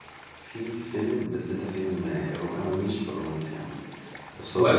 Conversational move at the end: listening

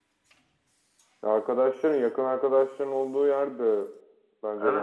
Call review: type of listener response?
taking over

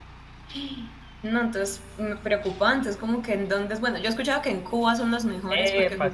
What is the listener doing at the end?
taking over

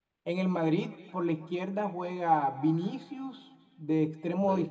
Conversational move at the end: listening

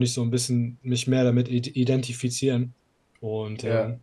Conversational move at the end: listening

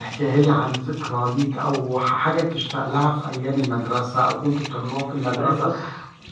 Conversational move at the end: taking over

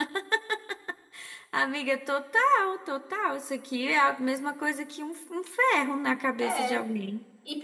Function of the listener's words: taking over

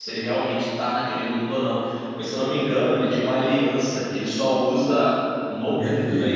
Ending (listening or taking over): taking over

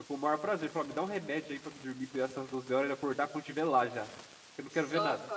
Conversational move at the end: taking over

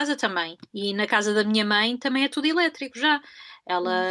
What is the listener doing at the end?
listening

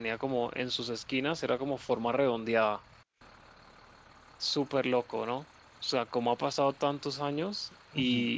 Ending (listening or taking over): listening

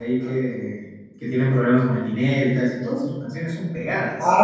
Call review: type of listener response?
taking over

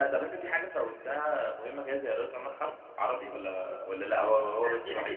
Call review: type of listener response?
taking over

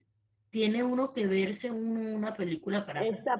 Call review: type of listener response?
taking over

